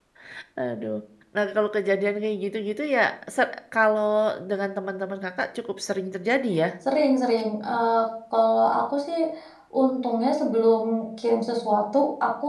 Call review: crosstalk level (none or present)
none